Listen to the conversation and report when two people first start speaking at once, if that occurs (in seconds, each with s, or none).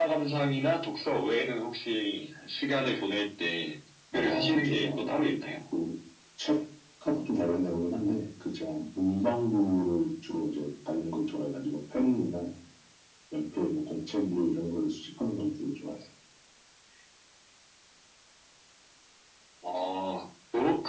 4.1 s